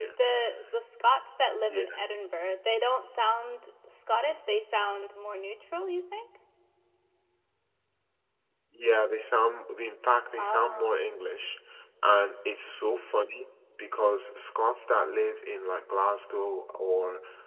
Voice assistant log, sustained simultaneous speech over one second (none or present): none